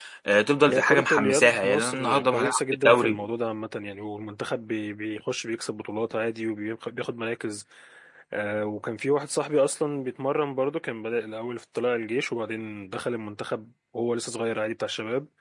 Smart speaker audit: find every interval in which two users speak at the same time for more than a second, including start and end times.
0.7-3.2

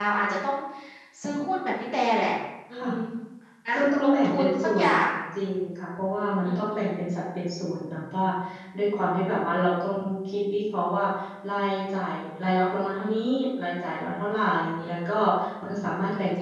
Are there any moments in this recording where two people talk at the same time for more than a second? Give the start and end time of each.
3.7-5.0

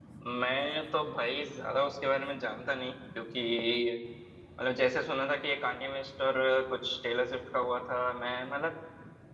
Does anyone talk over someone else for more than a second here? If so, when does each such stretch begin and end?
none

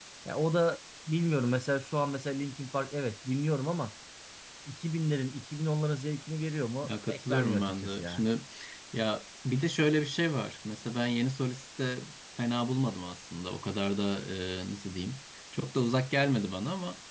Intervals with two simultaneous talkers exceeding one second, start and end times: 6.8-8.2

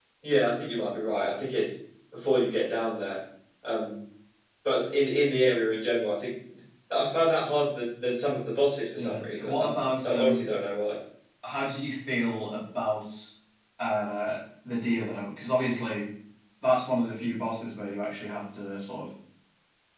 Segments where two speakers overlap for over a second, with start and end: 9.0-10.4

